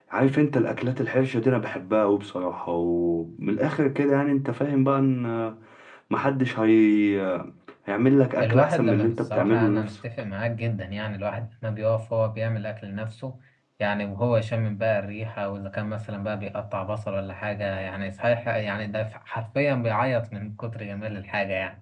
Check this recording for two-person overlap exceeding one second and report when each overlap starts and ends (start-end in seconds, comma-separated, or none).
8.4-9.9